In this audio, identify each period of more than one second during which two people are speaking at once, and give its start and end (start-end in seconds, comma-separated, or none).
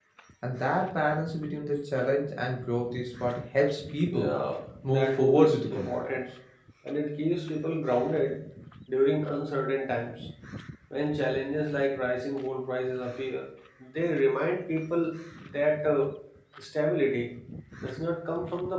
4.8-6.1